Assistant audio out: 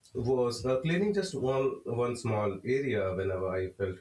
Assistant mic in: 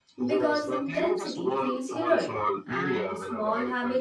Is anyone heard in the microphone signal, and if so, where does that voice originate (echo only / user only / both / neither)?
both